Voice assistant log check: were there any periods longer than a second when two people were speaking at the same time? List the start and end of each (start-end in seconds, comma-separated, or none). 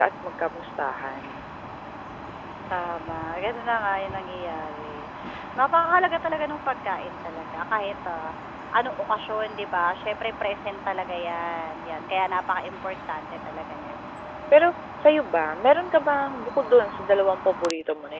none